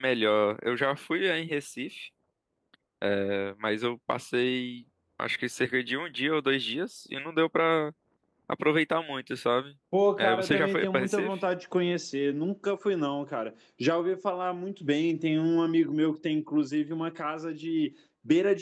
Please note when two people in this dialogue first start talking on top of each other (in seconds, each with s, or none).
10.2 s